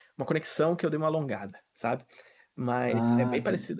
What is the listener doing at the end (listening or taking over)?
listening